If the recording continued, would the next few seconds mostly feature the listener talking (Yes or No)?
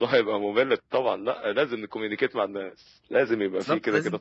Yes